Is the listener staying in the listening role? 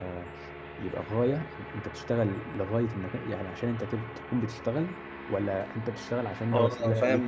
No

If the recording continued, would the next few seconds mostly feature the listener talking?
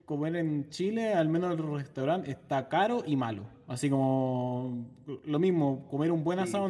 No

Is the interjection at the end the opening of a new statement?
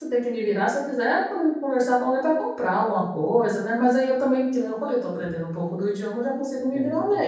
Yes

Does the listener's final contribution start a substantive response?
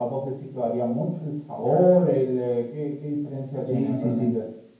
Yes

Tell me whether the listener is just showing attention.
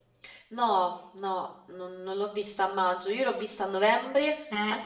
Yes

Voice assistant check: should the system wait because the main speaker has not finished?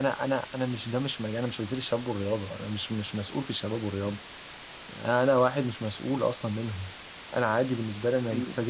Yes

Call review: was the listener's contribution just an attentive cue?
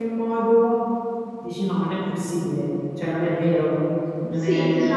No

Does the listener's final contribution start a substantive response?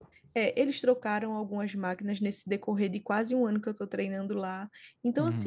No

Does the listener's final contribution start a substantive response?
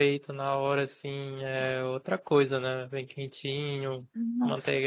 No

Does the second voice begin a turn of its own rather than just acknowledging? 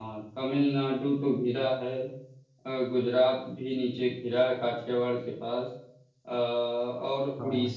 No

